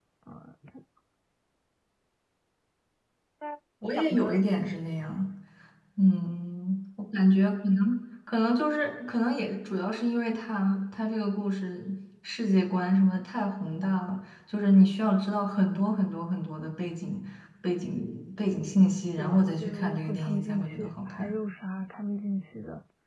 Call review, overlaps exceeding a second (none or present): present